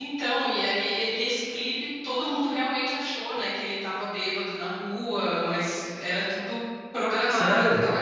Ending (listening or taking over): listening